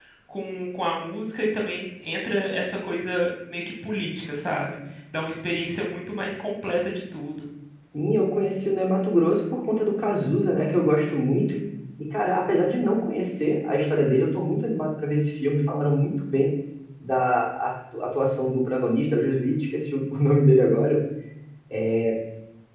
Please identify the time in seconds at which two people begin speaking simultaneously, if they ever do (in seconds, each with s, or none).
none